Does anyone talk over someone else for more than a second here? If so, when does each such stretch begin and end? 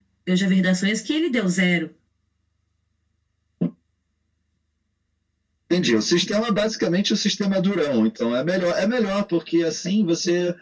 none

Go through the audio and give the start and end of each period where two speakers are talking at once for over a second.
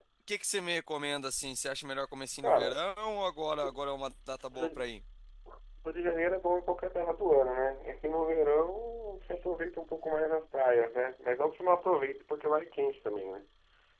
none

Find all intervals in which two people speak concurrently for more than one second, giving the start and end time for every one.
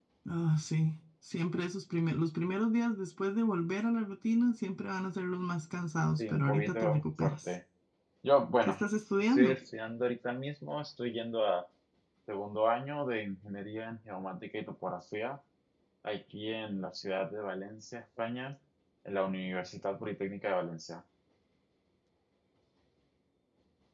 6.2-7.5

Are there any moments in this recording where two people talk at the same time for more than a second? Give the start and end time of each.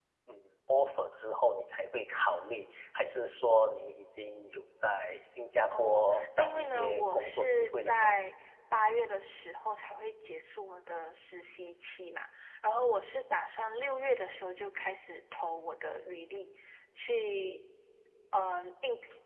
5.7-8.1

